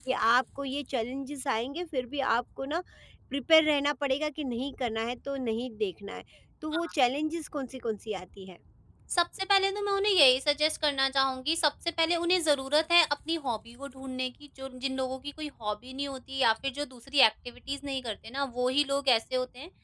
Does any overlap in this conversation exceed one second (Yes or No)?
No